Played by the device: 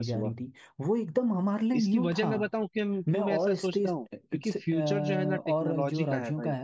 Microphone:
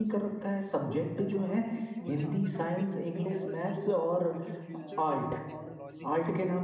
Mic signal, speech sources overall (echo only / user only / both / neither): both